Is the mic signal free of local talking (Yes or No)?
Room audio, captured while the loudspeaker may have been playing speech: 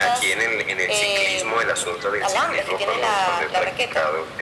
Yes